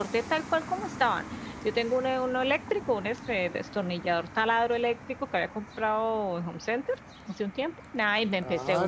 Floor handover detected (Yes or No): Yes